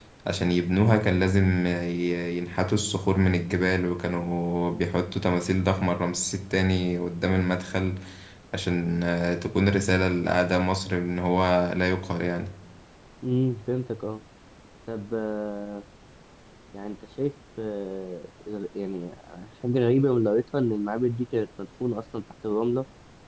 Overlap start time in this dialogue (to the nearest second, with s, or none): none